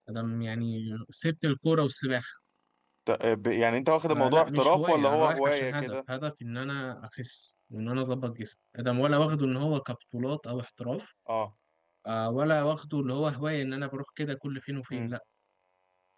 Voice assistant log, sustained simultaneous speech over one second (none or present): present